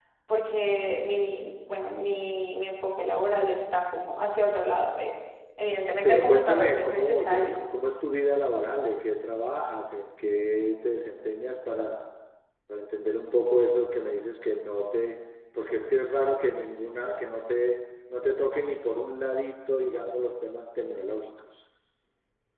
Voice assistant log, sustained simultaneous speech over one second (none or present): present